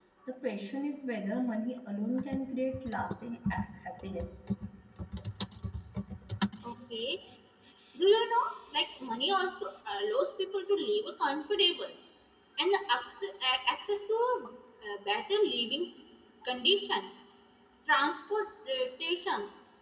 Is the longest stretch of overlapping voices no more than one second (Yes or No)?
Yes